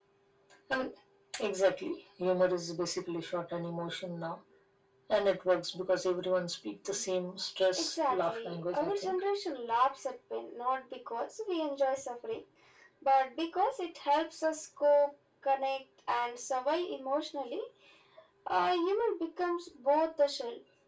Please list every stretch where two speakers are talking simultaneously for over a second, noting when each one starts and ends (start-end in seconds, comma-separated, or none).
7.8-9.2